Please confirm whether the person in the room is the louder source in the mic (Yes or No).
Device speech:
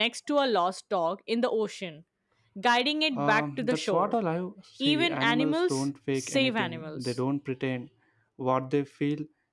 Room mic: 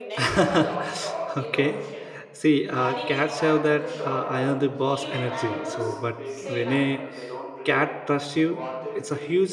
Yes